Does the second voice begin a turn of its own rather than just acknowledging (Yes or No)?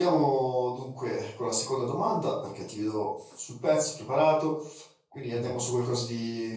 No